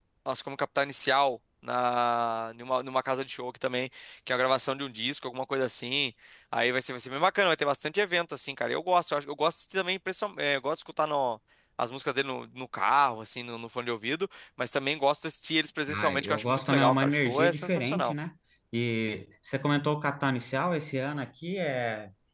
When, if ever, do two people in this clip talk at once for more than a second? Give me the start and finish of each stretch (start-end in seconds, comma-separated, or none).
15.9-18.1